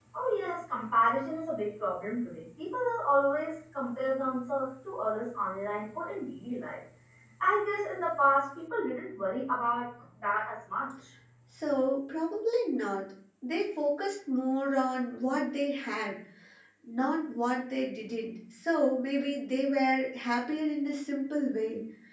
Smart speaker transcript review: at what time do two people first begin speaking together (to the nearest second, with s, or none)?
none